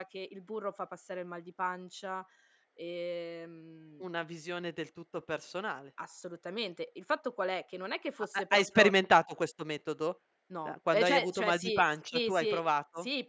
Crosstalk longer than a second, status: present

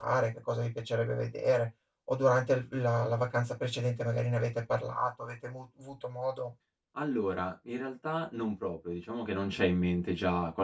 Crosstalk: none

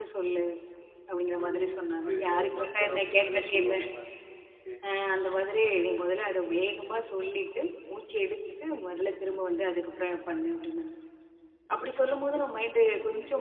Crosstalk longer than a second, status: present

